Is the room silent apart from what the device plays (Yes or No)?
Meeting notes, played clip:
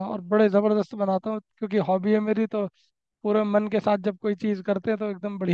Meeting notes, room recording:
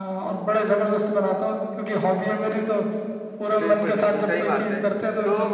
No